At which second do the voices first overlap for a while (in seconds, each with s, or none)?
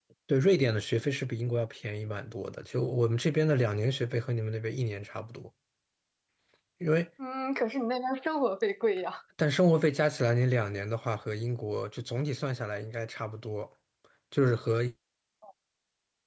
none